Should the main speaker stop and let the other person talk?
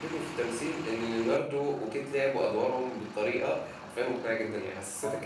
No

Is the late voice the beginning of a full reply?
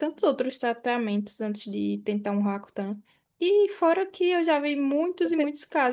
No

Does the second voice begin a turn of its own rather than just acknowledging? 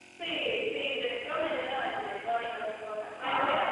No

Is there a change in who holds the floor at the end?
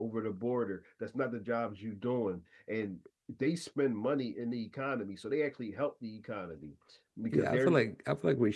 Yes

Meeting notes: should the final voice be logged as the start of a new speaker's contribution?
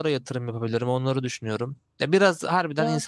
No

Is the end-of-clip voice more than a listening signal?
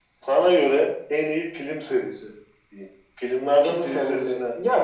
Yes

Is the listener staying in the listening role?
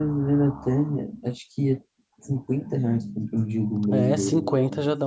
No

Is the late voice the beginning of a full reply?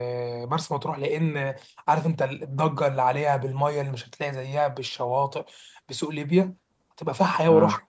No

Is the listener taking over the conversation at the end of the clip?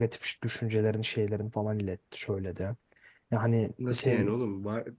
Yes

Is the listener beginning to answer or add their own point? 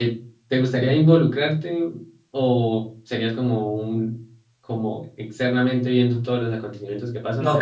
Yes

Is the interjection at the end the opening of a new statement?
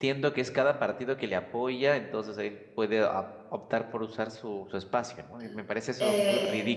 Yes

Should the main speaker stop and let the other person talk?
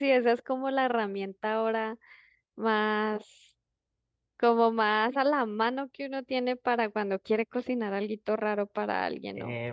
No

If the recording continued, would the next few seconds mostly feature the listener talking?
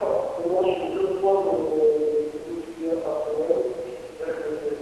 No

